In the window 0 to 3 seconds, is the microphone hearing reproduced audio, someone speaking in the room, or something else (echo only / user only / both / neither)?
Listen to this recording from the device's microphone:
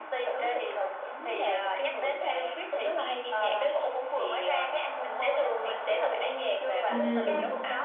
echo only